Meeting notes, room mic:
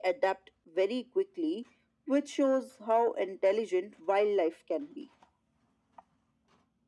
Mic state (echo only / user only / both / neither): echo only